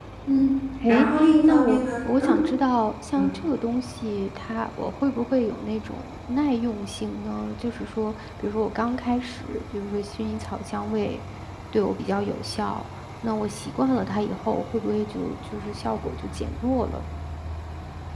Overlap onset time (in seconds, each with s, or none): 0.9 s